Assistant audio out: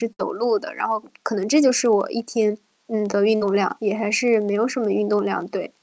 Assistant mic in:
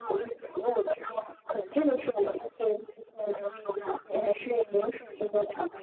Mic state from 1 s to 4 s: echo only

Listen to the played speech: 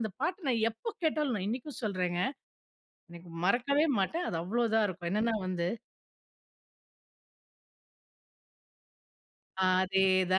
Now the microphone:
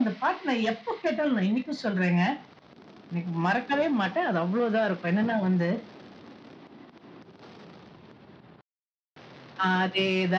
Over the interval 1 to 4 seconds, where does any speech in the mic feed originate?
echo only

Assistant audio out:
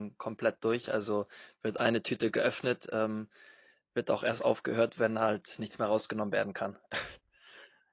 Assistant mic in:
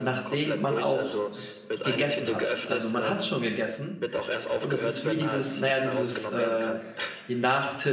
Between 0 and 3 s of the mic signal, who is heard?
both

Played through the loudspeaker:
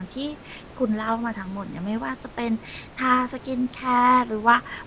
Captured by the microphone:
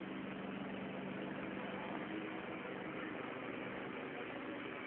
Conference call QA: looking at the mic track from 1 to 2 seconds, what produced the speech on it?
neither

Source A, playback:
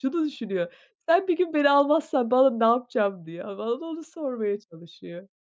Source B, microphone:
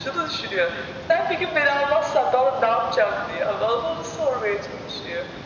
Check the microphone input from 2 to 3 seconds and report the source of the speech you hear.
echo only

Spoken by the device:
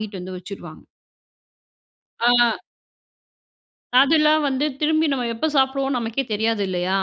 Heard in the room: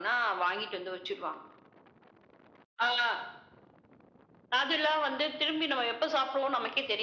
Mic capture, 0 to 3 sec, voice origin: echo only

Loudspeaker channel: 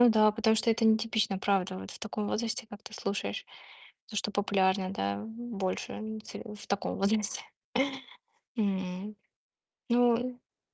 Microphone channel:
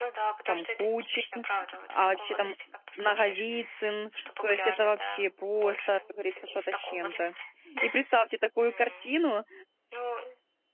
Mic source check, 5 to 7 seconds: both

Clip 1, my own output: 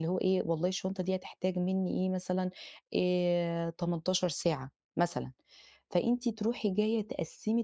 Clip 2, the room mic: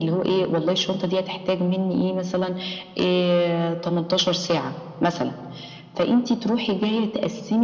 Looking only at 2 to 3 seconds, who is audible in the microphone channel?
echo only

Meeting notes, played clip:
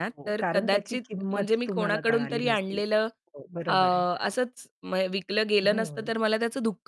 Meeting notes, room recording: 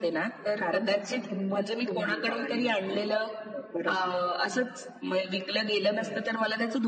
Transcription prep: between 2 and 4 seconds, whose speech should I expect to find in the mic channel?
echo only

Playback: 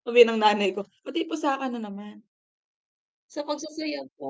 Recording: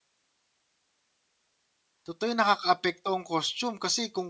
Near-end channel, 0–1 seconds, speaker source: neither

